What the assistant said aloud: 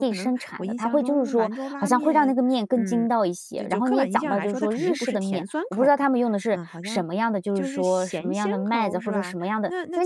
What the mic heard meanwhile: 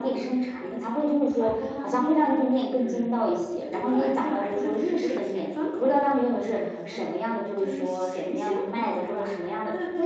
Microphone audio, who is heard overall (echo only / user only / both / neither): echo only